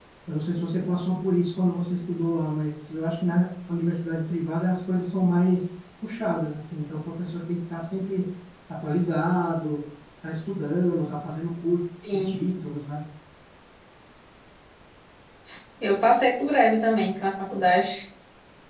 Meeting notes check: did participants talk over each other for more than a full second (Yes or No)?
No